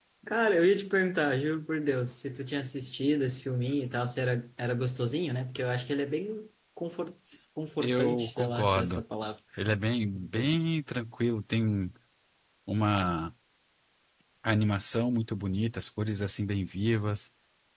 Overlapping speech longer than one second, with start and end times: 7.8-9.0

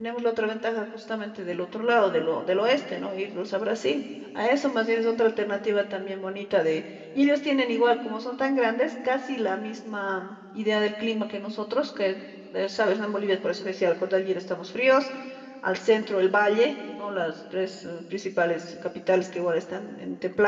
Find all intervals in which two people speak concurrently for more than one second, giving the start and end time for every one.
none

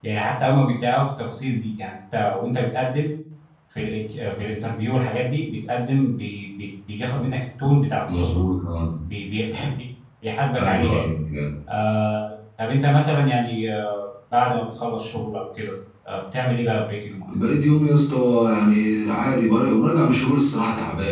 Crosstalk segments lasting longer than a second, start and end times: none

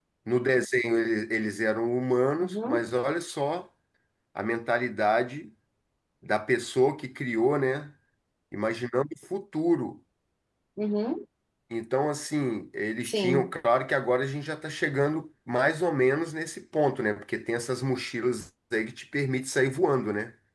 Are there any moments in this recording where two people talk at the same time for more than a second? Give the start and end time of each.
none

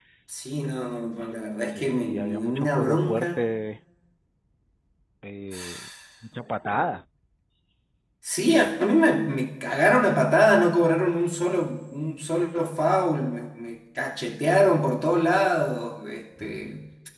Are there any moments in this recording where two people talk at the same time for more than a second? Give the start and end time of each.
1.7-3.4

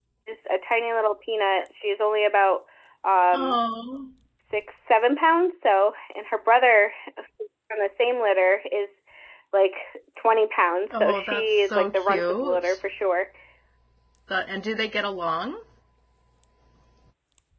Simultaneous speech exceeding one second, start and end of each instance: 10.9-12.8

